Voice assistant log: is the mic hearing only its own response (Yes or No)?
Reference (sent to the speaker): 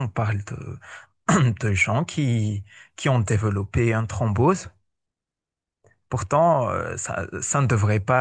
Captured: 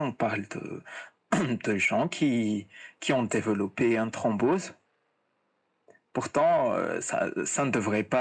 Yes